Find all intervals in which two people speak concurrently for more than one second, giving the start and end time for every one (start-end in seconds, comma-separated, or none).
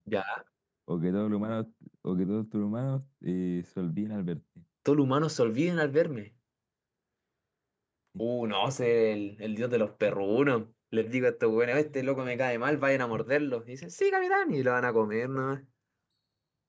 none